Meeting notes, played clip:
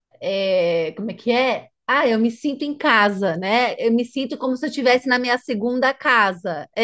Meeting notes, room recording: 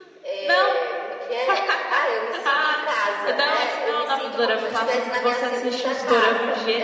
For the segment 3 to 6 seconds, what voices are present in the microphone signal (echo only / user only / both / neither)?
both